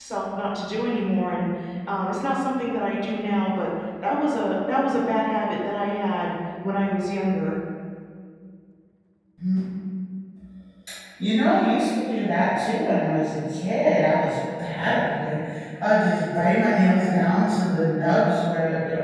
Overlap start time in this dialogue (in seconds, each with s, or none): none